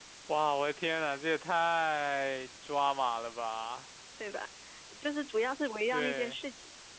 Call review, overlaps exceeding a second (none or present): none